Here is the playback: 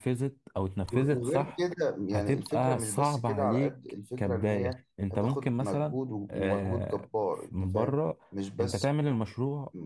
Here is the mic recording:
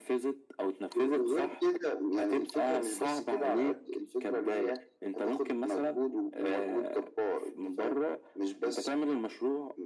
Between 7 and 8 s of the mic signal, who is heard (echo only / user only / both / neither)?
echo only